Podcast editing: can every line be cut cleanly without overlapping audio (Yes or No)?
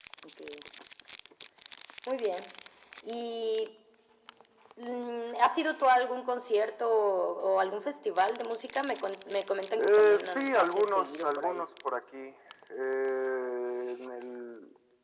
No